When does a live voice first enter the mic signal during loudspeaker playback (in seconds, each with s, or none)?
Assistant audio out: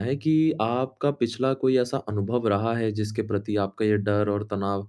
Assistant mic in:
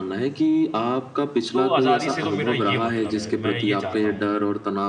1.5 s